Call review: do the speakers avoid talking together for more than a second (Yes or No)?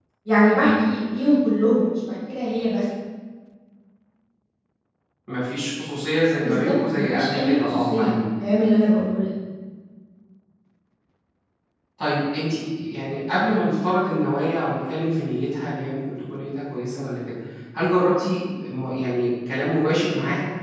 No